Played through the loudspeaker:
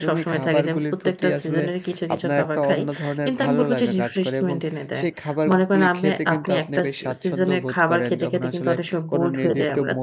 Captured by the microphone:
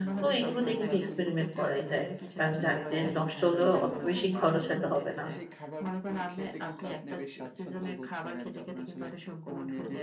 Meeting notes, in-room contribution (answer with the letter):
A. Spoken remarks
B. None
A